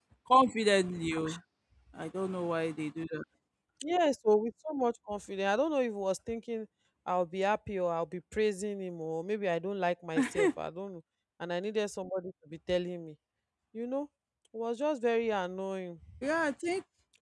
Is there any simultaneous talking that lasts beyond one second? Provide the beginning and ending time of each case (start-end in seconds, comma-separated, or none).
none